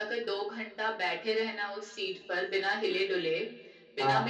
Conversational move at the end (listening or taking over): listening